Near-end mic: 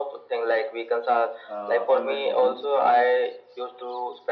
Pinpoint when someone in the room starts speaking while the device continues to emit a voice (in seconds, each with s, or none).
1.5 s